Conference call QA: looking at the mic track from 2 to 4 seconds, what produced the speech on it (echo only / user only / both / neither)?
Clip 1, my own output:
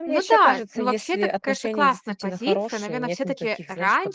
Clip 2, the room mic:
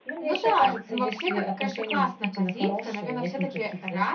echo only